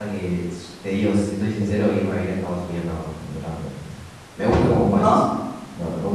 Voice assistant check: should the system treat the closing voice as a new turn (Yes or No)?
No